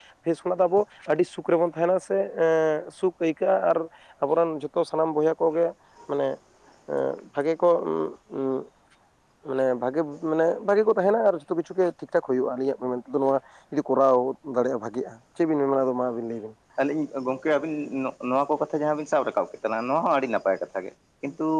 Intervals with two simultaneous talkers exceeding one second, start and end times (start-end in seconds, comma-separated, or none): none